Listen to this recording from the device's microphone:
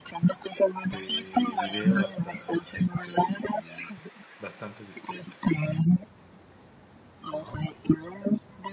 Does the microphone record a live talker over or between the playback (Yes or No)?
Yes